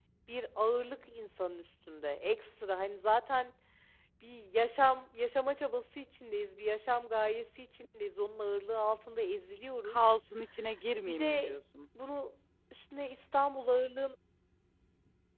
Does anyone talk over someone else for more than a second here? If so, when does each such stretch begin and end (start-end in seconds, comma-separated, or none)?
none